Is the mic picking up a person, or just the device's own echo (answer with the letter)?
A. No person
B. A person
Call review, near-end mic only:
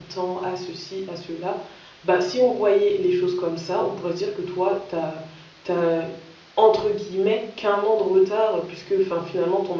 B